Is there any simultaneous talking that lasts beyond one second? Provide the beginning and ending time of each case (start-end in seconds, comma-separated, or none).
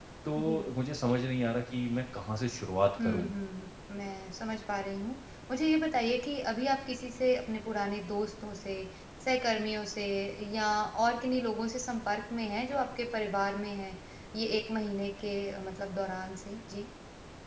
none